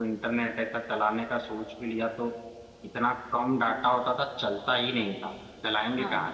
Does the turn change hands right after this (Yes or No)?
No